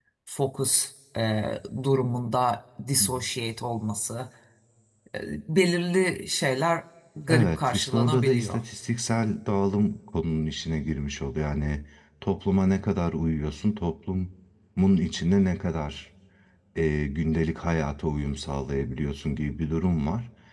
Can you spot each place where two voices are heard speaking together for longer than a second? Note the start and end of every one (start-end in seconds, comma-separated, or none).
7.3-8.6